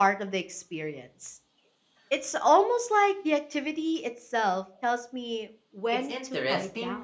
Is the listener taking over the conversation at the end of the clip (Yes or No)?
Yes